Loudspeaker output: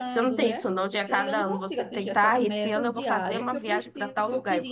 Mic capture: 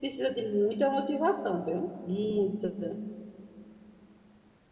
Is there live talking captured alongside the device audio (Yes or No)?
Yes